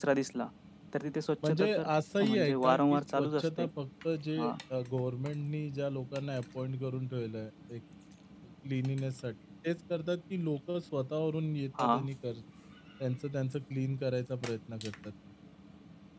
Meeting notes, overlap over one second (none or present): present